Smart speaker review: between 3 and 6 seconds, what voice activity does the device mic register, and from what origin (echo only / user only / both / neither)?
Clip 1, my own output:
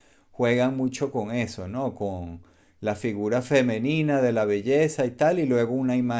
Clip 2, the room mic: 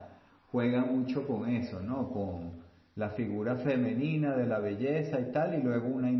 echo only